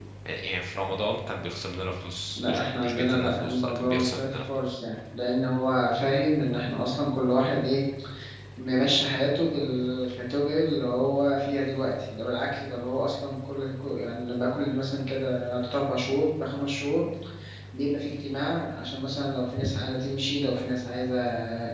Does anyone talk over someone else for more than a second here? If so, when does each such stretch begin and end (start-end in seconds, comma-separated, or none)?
2.4-4.8